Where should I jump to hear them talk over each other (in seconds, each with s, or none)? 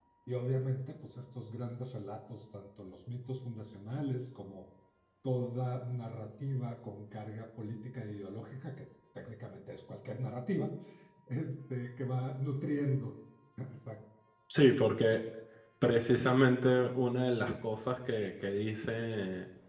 none